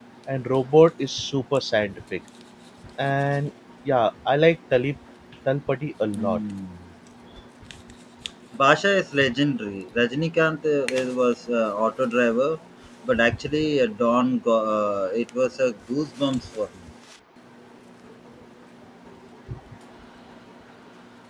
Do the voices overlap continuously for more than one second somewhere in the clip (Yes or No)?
No